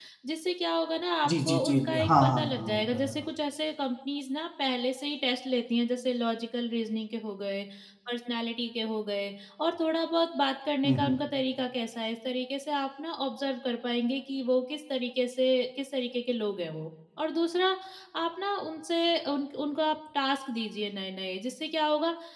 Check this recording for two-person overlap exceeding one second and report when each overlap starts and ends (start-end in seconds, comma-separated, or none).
1.3-3.2